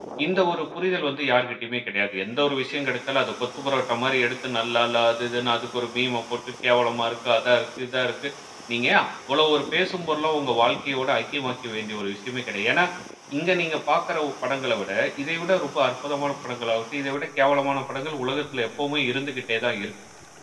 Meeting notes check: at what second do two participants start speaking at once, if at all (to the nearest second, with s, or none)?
none